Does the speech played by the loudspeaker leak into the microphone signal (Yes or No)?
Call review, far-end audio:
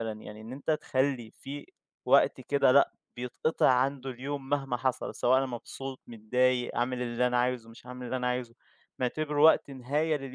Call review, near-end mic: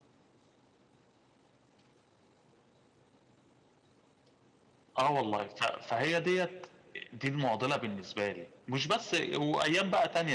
No